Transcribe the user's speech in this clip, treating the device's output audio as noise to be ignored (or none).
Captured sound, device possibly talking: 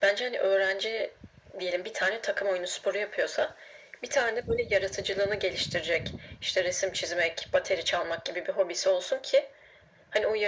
none